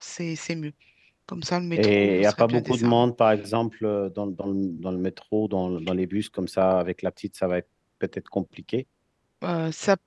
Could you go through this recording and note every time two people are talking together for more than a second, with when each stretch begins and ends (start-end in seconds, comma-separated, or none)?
1.8-3.1